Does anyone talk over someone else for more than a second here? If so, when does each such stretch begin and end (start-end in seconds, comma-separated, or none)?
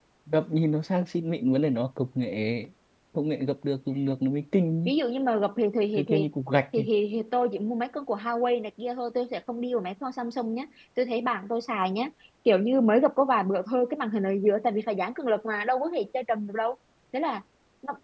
none